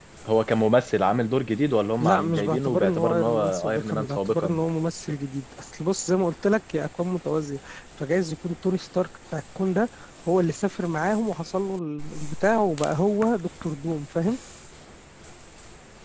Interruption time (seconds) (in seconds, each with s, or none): 2.0 s